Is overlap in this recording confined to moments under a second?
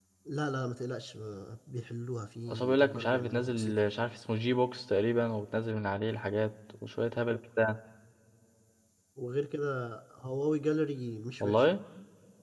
No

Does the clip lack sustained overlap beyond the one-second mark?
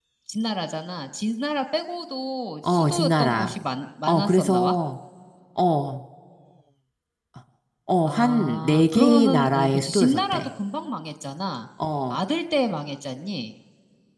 No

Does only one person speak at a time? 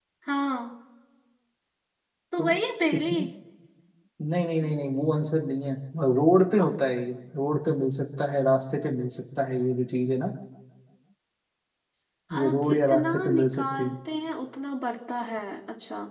No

